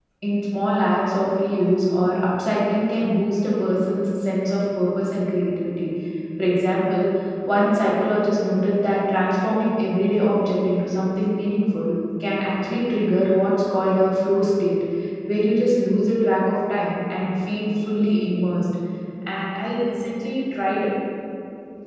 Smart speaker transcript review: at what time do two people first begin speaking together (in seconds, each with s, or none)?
none